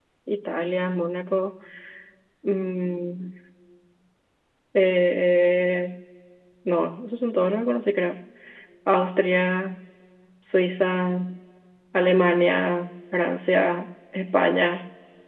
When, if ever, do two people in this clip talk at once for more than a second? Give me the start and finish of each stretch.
none

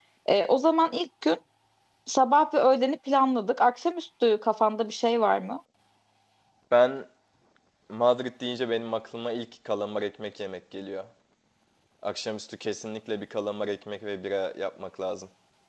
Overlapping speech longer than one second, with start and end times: none

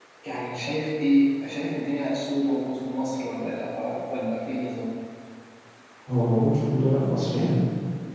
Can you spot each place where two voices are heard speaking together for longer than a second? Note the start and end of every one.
none

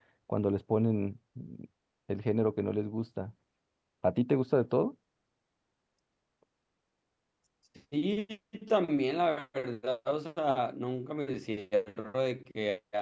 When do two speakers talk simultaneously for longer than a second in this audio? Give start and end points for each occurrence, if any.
none

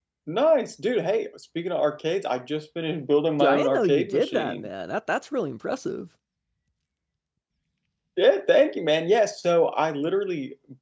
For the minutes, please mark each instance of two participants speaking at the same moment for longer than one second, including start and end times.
3.4-4.7

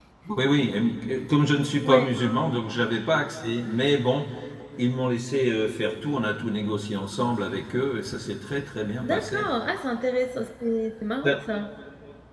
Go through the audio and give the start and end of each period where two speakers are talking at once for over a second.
none

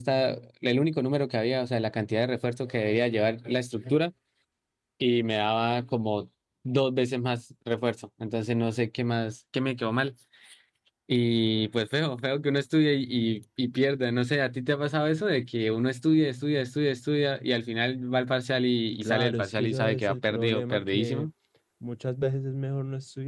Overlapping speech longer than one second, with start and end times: 19.0-21.3

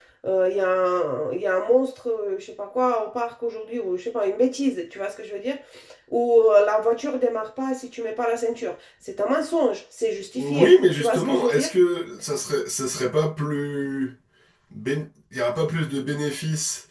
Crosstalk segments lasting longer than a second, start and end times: 10.3-11.7

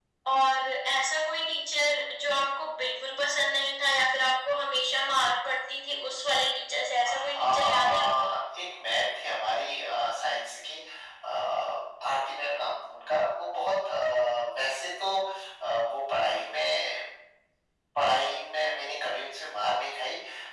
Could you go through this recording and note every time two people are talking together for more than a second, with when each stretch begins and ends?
7.0-8.3

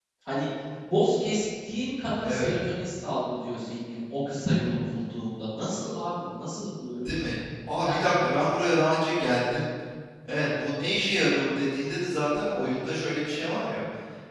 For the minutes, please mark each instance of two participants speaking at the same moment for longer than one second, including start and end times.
none

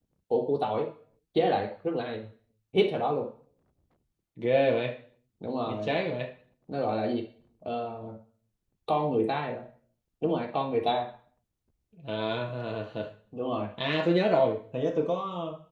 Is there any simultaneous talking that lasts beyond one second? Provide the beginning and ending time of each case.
none

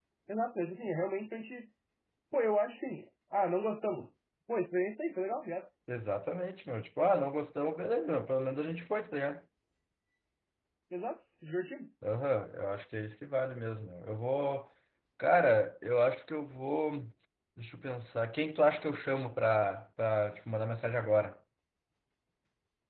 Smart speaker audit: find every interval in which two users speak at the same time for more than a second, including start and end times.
none

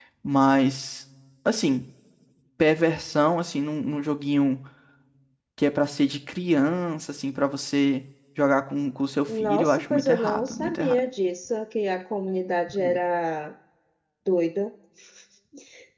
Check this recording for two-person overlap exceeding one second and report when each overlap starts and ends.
9.3-11.0

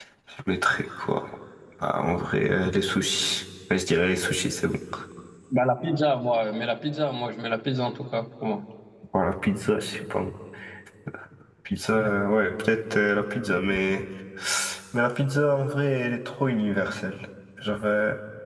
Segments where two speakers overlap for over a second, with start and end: none

